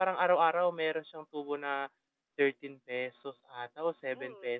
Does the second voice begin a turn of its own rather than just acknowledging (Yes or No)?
Yes